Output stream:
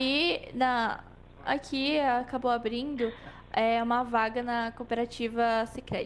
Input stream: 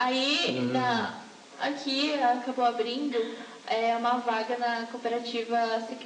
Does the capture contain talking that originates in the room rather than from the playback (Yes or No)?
Yes